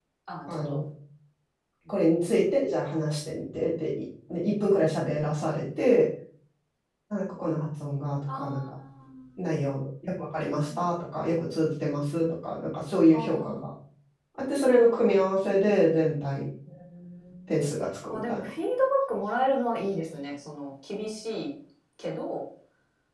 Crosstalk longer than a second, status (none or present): none